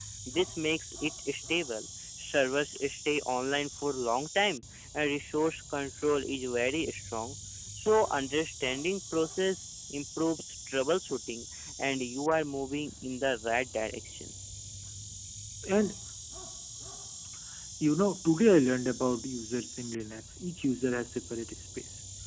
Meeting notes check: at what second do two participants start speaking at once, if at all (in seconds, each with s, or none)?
none